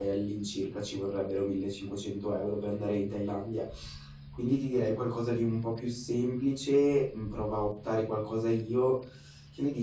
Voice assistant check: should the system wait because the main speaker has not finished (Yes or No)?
No